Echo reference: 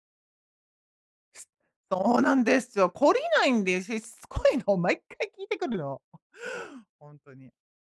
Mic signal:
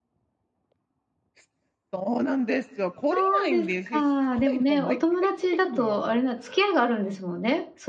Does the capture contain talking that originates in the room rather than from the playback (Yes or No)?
Yes